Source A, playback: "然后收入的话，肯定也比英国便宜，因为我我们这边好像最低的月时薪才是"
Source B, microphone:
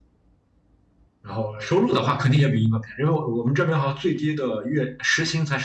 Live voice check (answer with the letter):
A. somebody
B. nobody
B